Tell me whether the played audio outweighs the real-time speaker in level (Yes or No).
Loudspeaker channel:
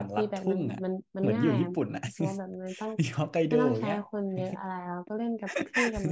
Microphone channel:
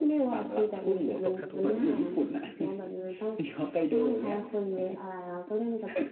Yes